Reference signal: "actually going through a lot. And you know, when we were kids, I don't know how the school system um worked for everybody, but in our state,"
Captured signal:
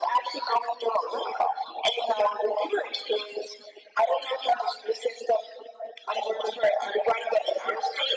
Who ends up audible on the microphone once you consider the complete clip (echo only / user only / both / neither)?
echo only